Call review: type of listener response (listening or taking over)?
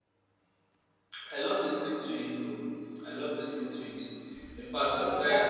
listening